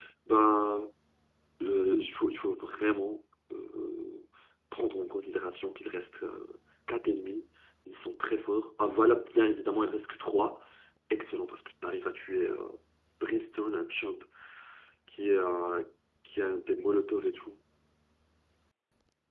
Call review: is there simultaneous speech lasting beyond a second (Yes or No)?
No